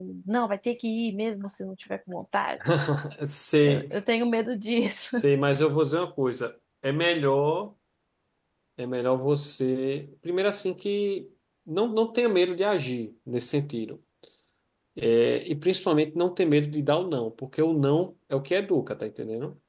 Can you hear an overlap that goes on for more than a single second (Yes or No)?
No